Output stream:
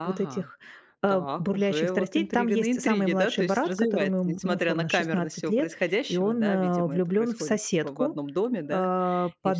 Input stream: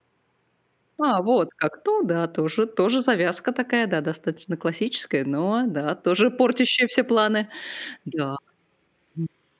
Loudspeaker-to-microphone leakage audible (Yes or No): No